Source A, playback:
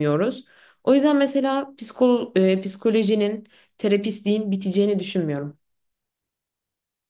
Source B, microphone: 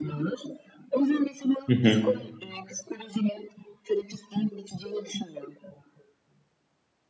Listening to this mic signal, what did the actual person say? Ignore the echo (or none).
Hı hı.